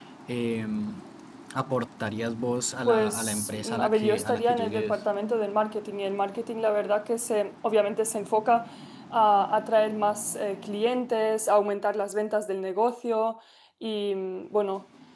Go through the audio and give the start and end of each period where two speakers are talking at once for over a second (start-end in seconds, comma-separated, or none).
2.9-5.0